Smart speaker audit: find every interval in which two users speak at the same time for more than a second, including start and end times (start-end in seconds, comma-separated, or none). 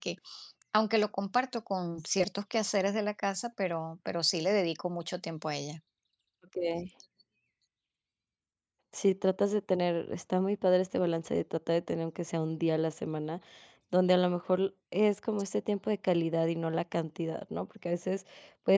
none